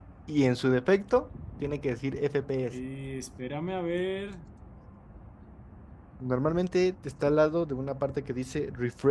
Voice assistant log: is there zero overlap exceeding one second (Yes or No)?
Yes